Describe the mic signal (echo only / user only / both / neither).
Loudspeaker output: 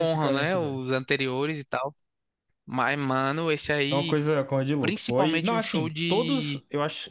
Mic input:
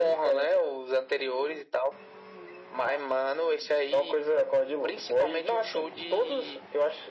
echo only